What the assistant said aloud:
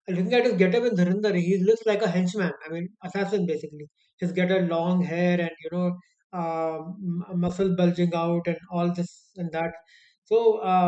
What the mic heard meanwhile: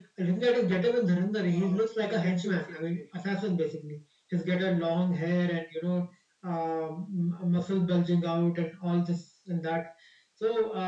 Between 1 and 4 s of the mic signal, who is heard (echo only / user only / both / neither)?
both